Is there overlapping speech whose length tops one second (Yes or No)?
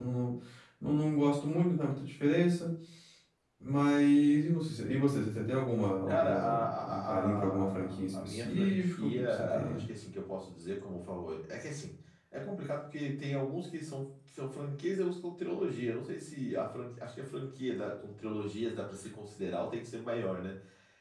Yes